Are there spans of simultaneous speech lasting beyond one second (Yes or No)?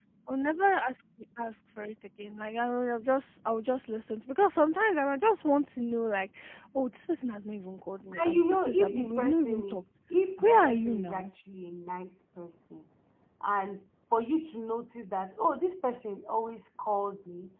Yes